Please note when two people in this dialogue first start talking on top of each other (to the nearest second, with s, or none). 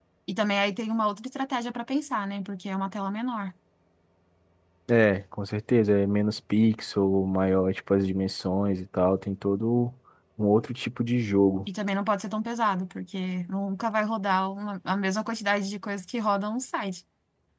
none